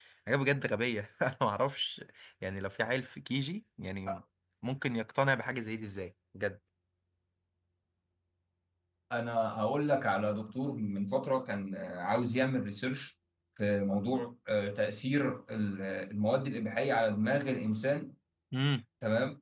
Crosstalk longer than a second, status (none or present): none